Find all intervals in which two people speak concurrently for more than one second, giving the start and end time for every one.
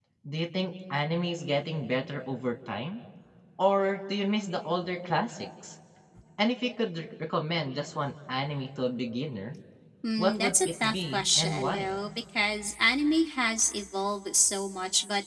10.2-11.9

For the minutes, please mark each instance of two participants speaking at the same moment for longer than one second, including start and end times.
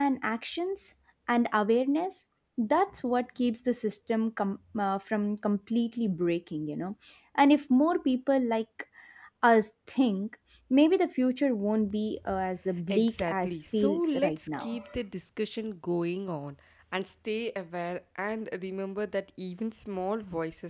12.9-14.7

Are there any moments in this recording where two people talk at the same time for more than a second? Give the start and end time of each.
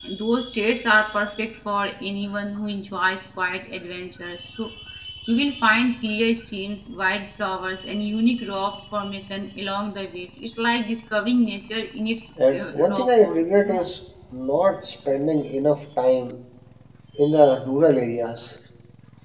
12.5-13.9

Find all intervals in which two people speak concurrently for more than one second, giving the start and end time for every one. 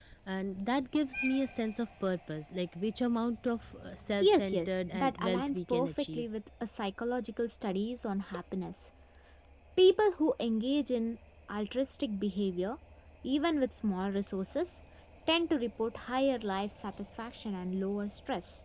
4.2-6.3

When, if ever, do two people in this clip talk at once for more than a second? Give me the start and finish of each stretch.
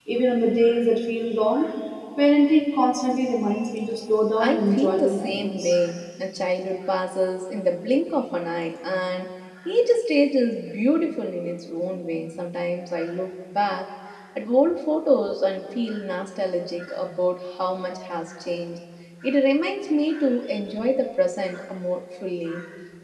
4.4-5.8

